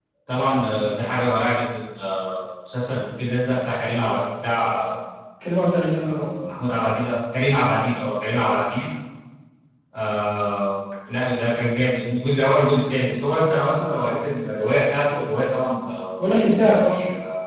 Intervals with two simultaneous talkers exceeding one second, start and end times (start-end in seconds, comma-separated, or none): none